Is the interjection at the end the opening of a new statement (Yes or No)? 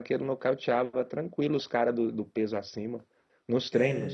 Yes